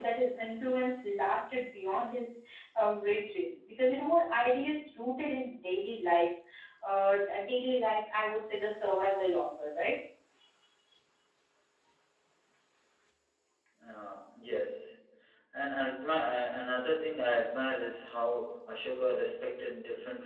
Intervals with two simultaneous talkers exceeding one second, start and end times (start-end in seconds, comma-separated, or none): none